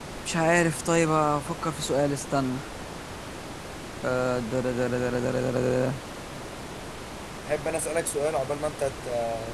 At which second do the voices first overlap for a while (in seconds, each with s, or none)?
none